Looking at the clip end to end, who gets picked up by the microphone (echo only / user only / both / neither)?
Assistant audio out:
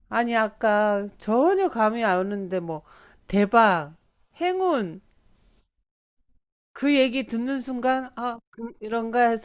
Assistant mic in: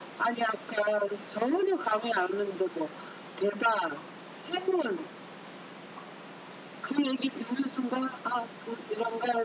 echo only